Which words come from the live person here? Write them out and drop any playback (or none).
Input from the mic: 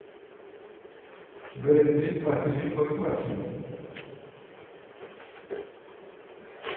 Böyle de bir sahtecilik boyutu var şeyin,